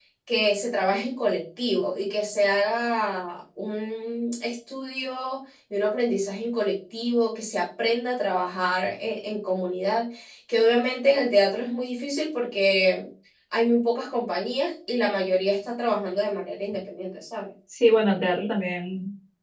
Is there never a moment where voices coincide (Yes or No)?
Yes